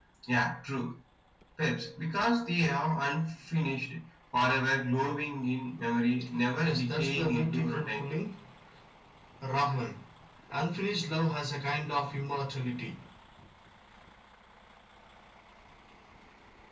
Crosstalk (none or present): present